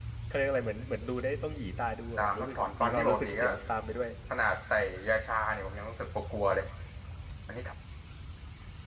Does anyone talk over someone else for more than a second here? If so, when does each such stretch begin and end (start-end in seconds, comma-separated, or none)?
2.2-3.5